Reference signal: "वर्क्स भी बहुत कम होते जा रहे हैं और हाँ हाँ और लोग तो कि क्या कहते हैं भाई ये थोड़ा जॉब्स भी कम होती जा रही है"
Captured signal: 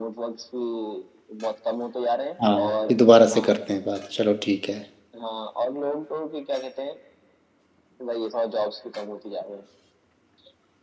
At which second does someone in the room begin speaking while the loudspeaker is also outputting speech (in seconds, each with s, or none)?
2.4 s